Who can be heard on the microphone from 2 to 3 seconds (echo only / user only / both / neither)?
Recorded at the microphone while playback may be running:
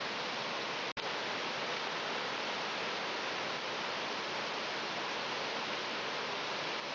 neither